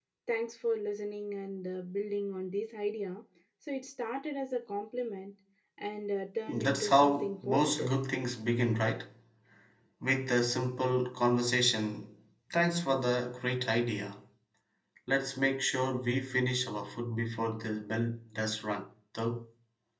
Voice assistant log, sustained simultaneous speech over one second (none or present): present